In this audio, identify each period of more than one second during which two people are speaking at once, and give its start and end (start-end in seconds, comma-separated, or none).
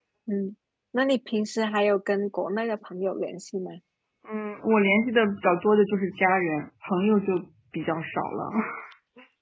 none